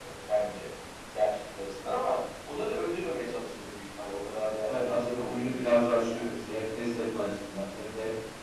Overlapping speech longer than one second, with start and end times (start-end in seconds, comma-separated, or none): 4.7-6.2